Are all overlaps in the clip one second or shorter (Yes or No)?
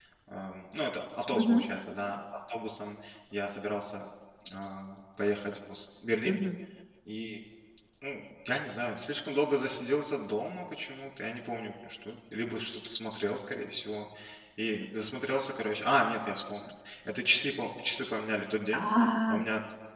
Yes